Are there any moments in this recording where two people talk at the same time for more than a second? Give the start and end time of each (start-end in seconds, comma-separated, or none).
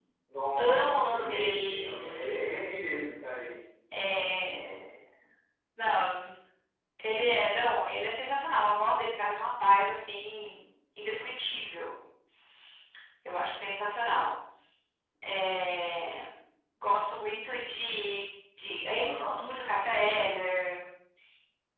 0.6-2.7